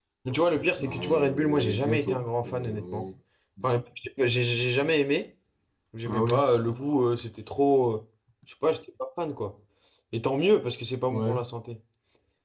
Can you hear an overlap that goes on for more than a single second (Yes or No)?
Yes